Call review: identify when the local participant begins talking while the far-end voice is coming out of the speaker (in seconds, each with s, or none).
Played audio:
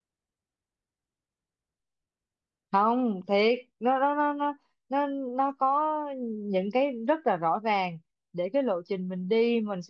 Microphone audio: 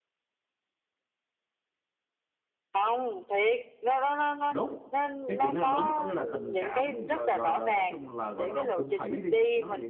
4.5 s